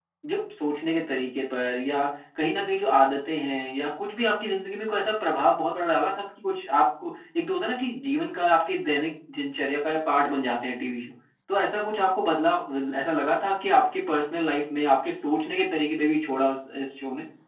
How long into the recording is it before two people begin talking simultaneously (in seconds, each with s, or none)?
none